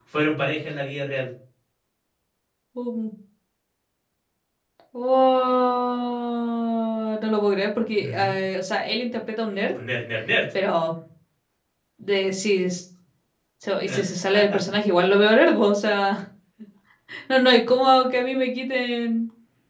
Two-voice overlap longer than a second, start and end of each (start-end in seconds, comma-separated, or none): none